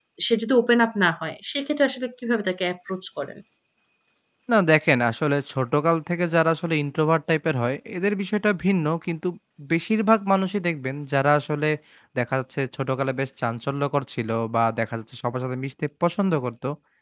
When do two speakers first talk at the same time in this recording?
none

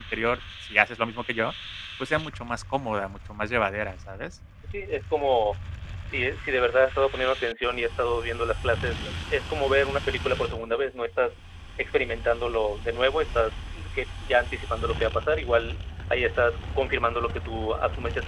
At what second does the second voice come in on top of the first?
none

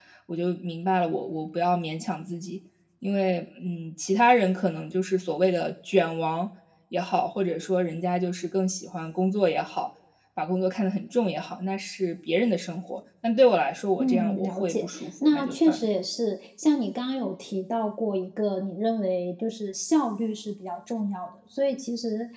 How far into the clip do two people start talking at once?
14.0 s

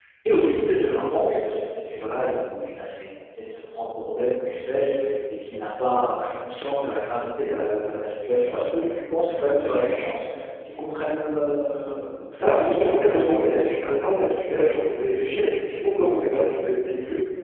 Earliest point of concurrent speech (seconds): 12.4 s

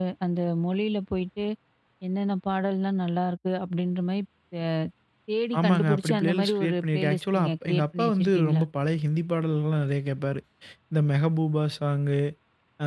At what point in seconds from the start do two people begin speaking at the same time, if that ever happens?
5.6 s

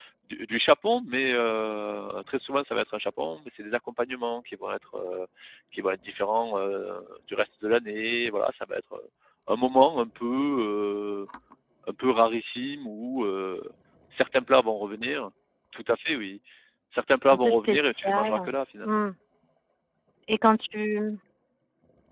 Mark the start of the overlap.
17.2 s

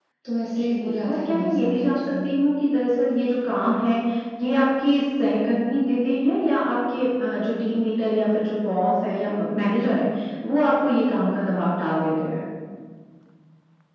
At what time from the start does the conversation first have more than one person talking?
0.6 s

